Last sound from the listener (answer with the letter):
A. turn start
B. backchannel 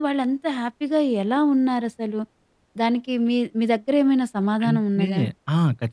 A